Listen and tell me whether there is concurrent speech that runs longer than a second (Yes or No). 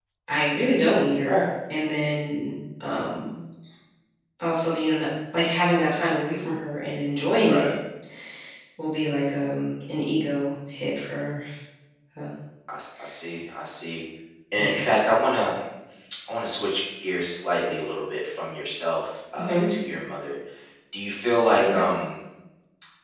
No